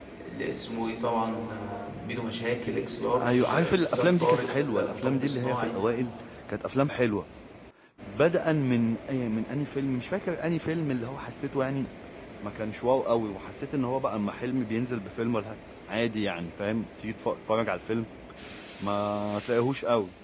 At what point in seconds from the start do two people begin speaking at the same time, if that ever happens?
3.1 s

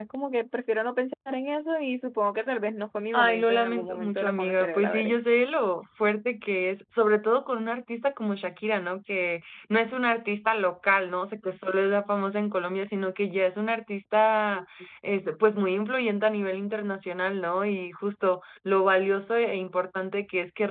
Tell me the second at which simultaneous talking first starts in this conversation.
3.1 s

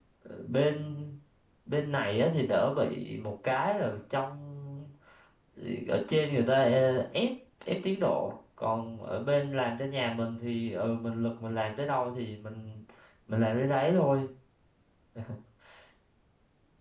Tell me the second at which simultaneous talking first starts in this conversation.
none

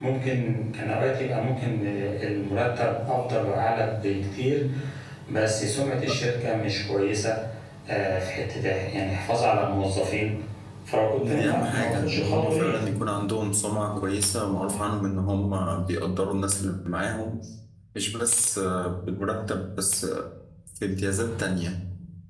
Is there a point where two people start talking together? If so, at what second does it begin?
11.2 s

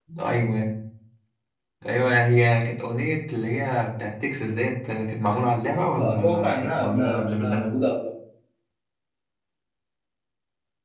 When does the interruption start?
6.0 s

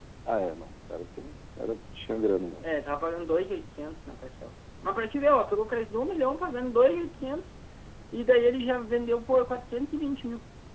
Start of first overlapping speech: none

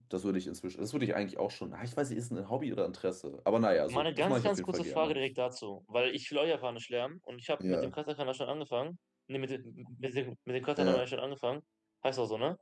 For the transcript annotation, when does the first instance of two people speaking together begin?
3.9 s

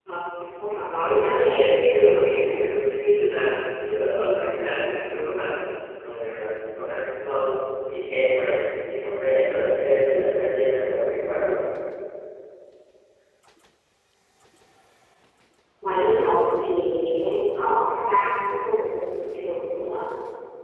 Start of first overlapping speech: 1.1 s

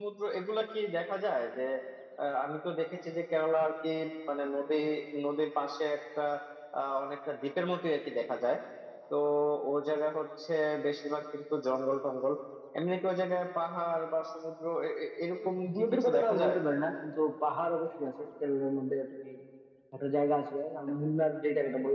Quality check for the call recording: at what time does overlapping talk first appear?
15.3 s

